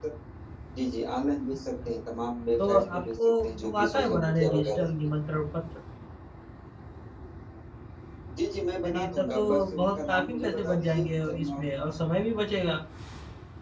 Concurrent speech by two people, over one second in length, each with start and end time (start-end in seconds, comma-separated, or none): 2.6-4.8, 8.8-11.6